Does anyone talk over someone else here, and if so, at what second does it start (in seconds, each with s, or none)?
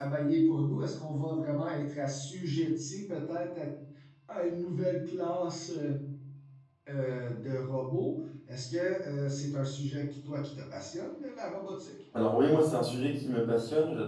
none